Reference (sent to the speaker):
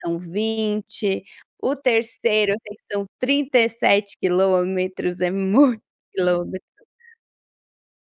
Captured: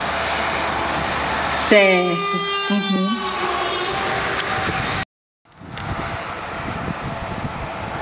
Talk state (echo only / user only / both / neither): user only